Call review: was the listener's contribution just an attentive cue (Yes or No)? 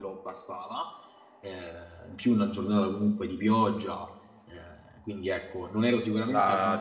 No